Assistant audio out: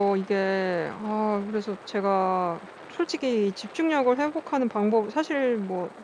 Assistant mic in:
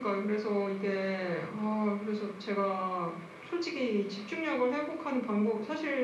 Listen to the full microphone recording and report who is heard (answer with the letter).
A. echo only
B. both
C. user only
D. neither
A